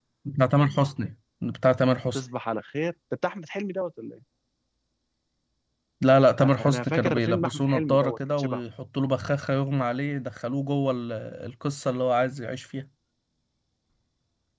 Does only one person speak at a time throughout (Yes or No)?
No